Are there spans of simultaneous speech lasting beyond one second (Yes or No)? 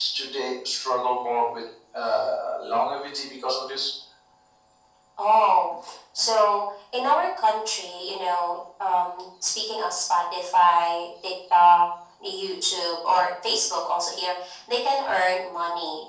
No